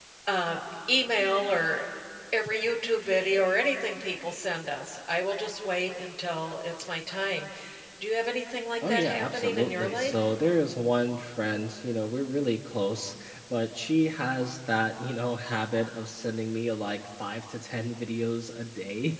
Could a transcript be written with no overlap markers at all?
No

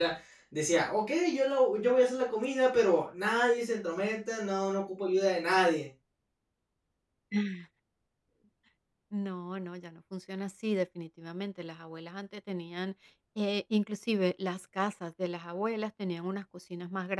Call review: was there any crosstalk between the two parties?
No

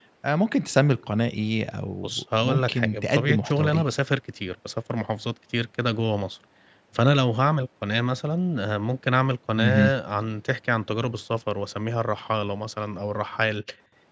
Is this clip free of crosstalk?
No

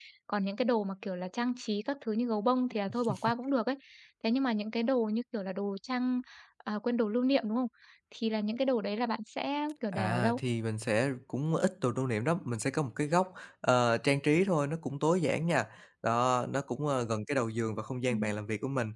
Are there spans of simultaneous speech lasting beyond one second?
No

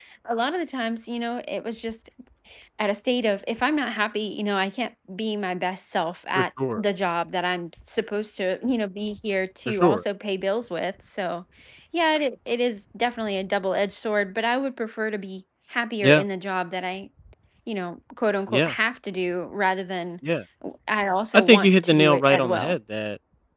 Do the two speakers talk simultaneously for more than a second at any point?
Yes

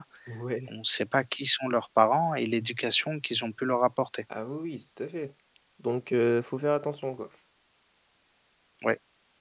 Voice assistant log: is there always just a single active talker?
Yes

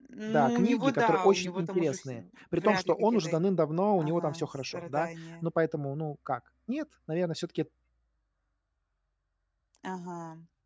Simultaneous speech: Yes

